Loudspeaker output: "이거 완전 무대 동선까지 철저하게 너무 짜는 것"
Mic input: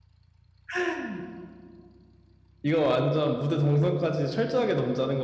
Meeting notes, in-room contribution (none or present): none